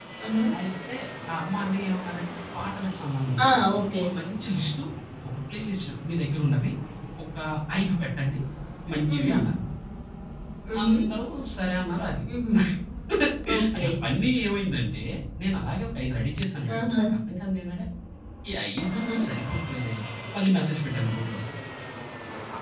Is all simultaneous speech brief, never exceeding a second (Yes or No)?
Yes